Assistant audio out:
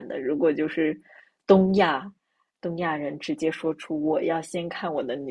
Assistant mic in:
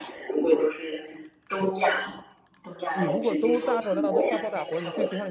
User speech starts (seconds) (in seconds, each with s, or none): 2.9 s